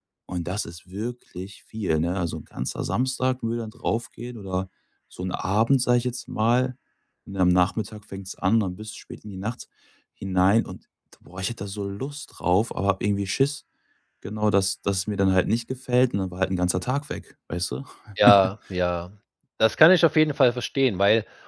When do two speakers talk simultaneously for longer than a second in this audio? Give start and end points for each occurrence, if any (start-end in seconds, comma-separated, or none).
none